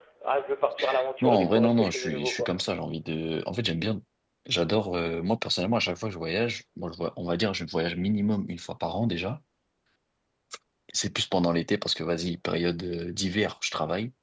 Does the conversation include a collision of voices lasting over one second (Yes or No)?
Yes